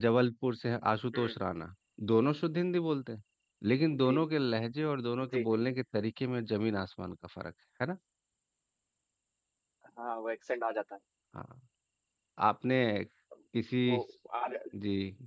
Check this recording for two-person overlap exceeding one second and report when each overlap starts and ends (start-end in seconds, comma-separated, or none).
none